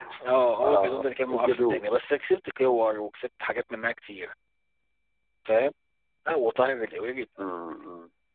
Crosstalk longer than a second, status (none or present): present